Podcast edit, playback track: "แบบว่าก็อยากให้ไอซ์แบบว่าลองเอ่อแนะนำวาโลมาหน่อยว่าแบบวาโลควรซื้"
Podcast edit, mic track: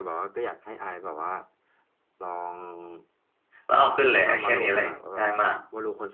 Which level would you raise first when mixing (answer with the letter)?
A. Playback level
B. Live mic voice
A